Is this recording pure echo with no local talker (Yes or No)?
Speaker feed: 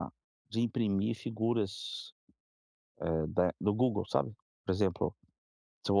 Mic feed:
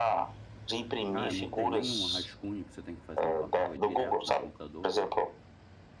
No